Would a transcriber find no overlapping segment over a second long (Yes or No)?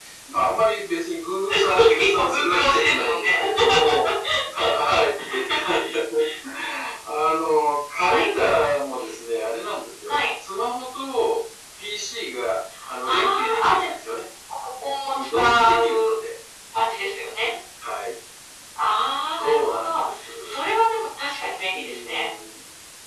No